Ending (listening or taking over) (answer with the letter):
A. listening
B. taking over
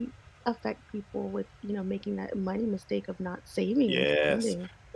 B